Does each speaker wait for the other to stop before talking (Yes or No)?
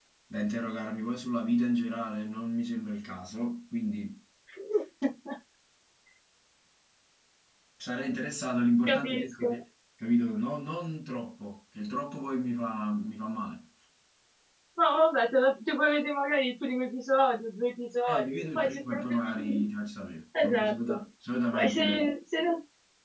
No